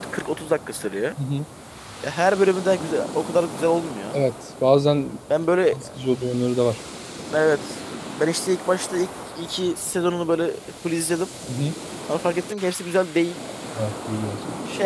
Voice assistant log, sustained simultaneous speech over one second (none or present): none